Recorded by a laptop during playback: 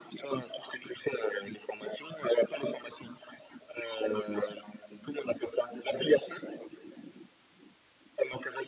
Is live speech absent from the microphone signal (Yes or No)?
Yes